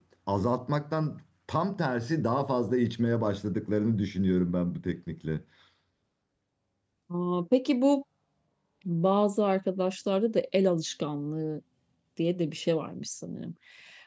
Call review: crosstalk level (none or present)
none